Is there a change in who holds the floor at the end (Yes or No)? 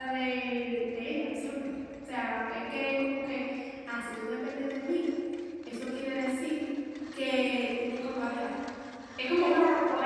Yes